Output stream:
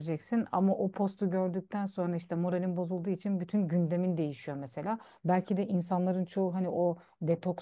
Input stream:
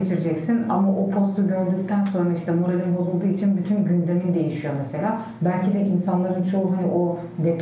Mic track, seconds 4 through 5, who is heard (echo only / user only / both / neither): echo only